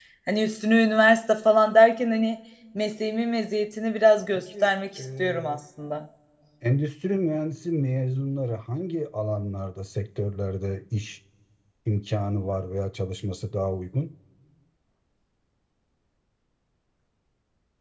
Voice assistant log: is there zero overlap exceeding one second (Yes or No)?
No